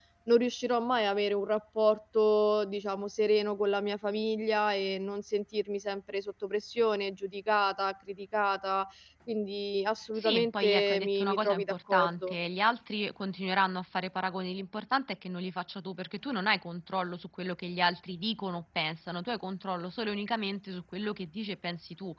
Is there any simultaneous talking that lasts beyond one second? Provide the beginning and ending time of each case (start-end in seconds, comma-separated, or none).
10.2-12.4